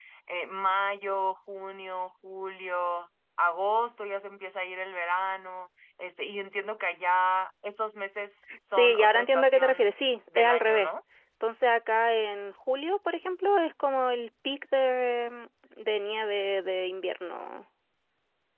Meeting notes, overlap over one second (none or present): present